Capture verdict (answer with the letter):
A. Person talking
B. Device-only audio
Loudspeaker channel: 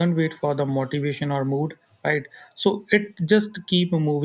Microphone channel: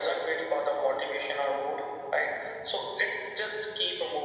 B